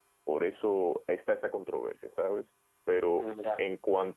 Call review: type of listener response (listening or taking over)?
listening